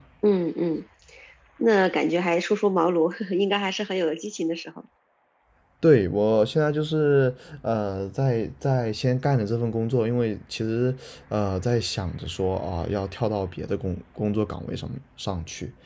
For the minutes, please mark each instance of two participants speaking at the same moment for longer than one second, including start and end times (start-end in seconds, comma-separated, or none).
none